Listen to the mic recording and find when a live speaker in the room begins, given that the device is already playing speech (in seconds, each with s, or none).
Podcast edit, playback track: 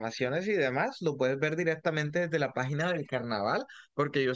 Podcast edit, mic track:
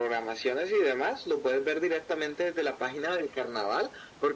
none